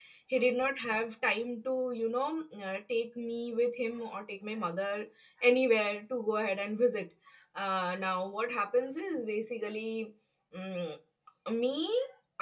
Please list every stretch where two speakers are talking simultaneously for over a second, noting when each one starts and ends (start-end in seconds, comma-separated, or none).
none